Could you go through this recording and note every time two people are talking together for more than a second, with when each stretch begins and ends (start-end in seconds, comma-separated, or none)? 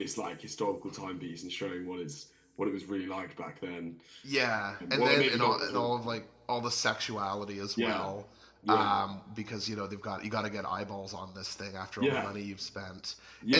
4.9-6.2